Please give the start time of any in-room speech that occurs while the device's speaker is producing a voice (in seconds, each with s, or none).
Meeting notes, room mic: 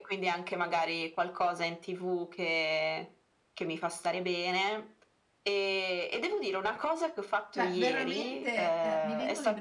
7.5 s